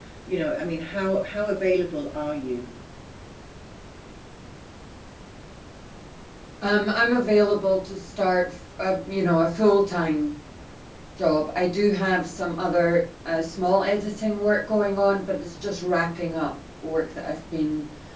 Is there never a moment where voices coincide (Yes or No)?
Yes